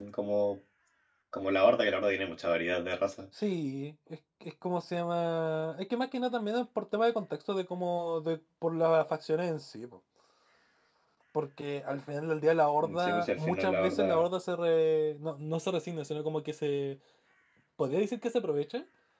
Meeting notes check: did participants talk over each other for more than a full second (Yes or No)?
Yes